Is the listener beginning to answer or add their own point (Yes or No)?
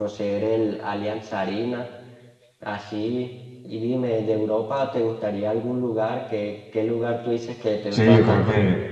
Yes